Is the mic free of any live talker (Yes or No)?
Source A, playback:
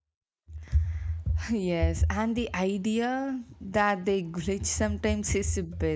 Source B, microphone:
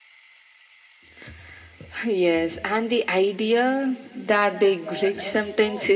No